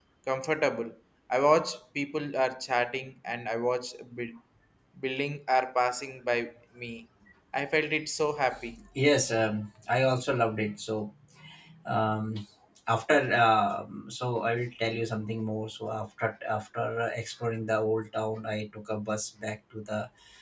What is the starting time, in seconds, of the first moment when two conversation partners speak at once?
none

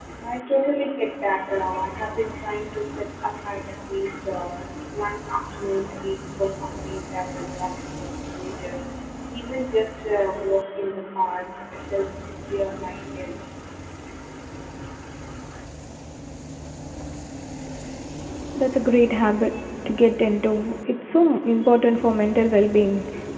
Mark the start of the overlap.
none

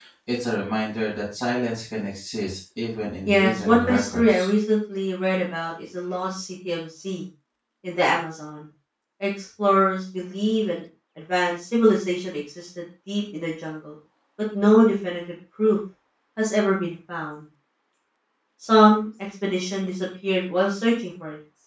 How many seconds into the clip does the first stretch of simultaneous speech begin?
3 s

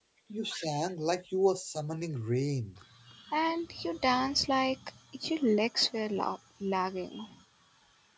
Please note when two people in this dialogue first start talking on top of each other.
none

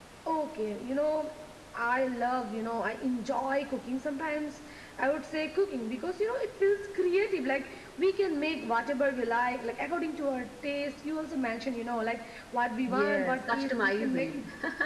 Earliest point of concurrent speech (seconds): 13 s

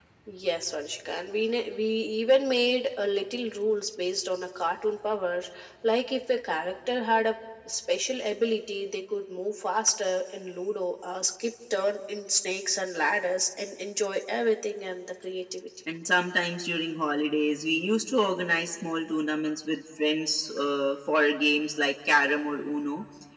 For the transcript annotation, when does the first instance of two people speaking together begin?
none

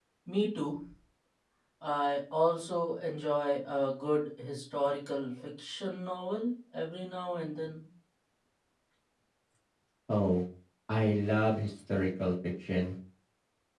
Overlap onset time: none

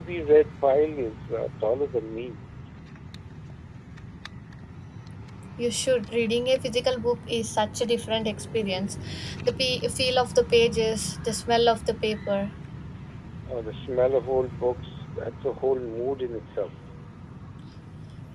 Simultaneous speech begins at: none

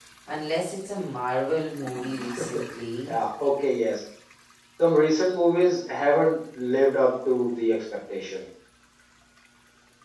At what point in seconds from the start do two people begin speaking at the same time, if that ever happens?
none

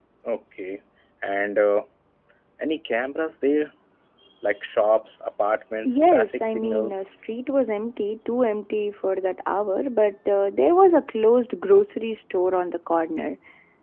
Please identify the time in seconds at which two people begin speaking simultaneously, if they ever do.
6 s

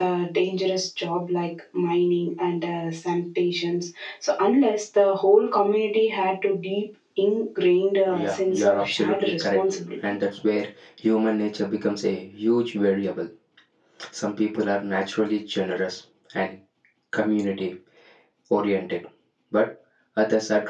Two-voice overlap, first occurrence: 8 s

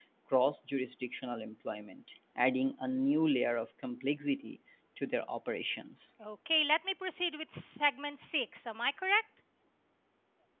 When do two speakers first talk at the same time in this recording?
none

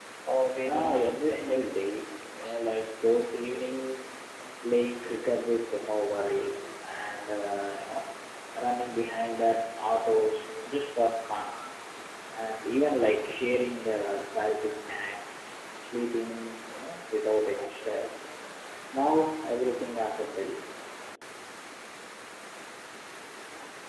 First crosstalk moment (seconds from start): 1 s

